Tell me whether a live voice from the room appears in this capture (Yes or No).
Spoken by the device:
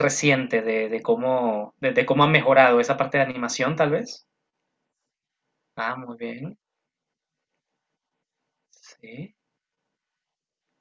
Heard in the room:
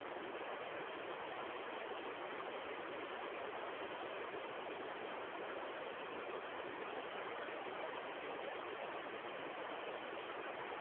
No